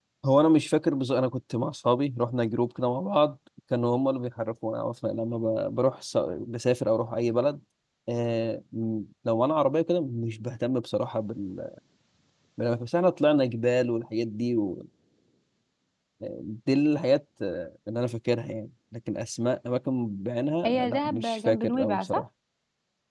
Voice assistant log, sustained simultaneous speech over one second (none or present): present